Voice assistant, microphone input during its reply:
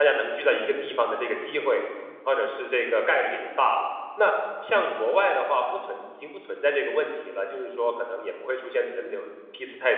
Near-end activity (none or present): present